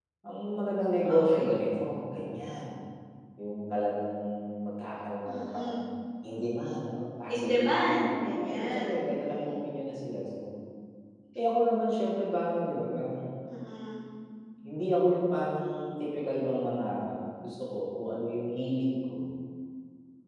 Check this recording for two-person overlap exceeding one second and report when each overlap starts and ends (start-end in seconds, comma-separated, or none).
7.3-9.4